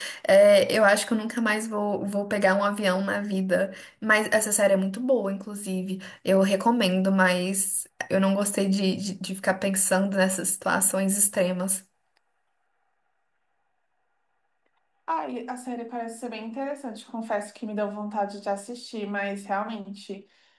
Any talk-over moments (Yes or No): No